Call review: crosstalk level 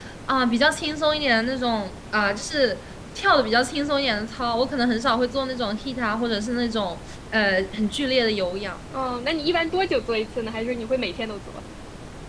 none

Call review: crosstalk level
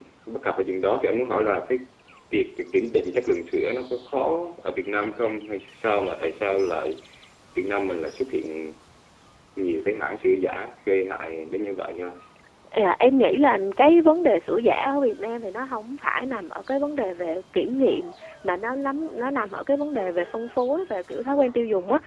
none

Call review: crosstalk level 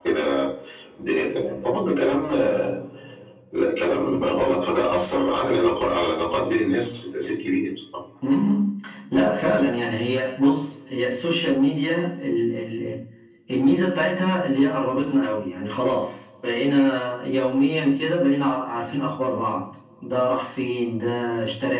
none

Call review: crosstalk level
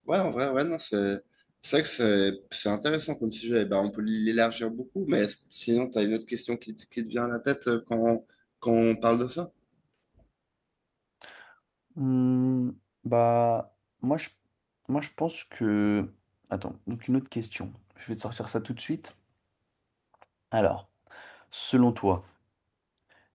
none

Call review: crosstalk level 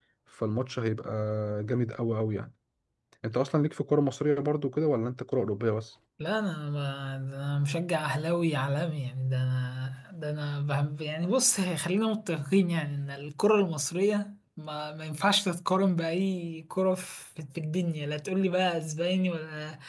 none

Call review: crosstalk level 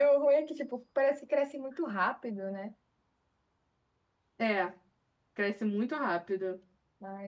none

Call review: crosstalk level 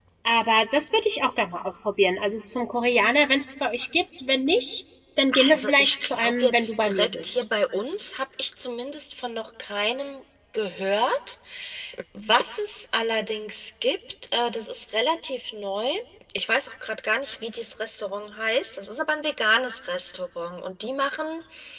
present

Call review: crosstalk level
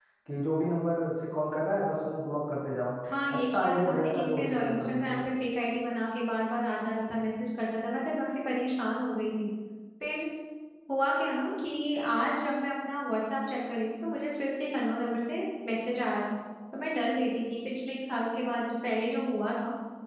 present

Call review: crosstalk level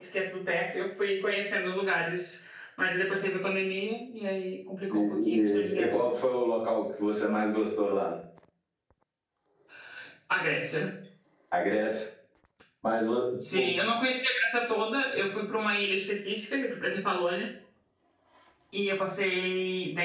present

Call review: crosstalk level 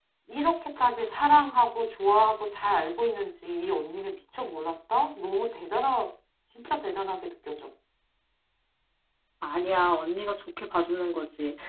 none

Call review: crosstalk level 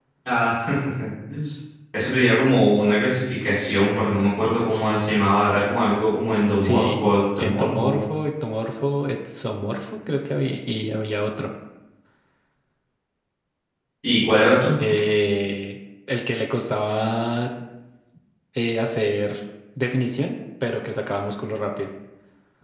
present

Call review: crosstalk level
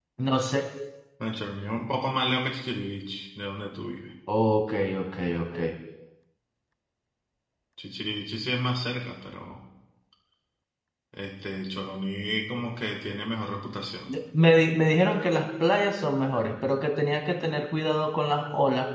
none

